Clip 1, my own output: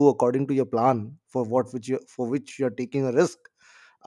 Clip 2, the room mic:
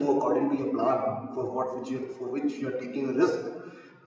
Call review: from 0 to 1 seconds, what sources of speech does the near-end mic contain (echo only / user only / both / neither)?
echo only